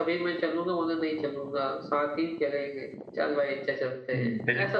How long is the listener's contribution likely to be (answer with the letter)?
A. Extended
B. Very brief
A